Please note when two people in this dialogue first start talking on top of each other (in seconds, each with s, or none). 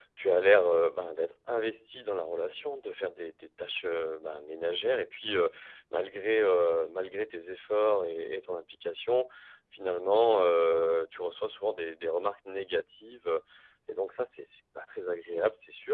none